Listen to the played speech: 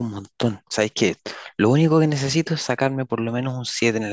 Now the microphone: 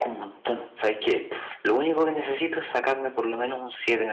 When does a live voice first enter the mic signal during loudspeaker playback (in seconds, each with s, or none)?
none